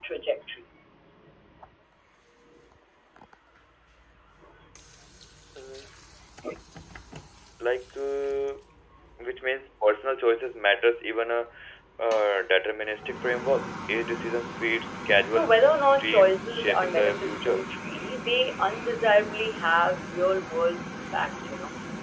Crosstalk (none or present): present